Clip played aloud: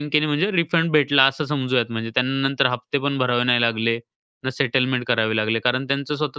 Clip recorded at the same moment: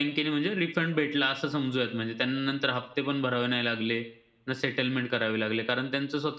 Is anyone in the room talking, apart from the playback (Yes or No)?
No